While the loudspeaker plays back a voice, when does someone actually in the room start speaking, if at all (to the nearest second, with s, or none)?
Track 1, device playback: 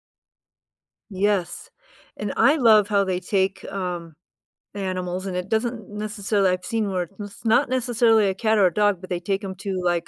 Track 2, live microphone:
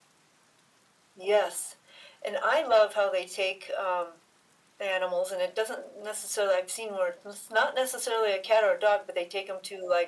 none